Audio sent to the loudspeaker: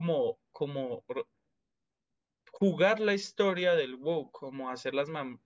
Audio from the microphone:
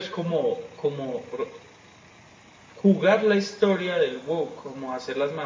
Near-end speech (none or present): none